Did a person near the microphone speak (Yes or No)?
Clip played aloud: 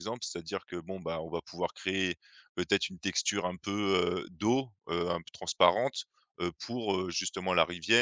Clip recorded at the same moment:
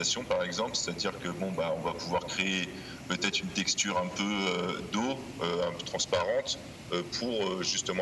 No